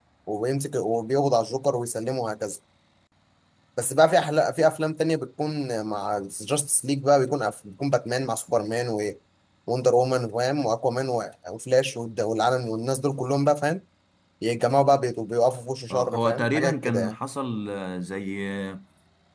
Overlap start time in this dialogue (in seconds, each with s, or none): 15.9 s